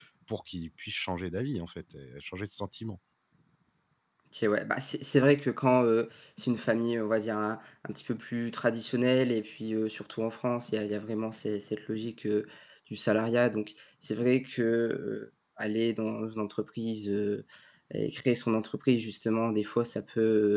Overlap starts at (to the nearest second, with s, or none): none